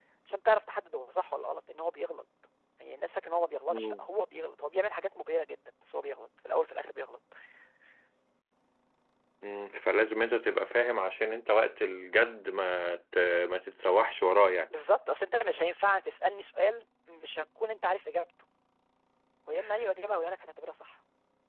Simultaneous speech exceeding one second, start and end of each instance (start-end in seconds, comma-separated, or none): none